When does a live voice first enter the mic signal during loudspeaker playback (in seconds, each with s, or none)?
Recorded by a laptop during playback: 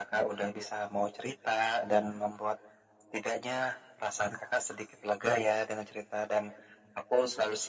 none